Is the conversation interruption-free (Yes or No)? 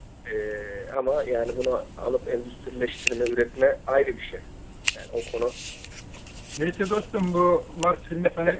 Yes